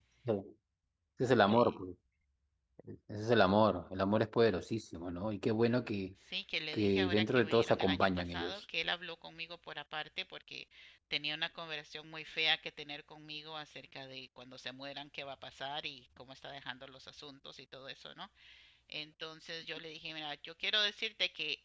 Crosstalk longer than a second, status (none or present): present